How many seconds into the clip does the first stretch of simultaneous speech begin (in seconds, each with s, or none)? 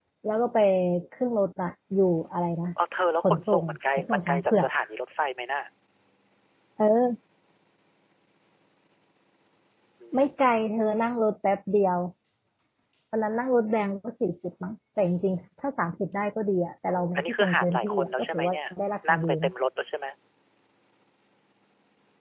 3.2 s